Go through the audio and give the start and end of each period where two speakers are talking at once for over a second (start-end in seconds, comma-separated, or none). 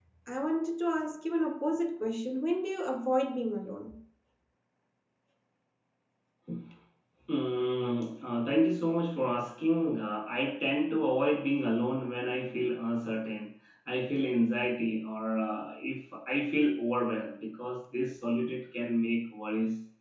none